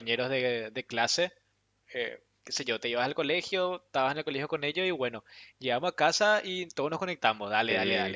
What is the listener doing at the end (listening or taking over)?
listening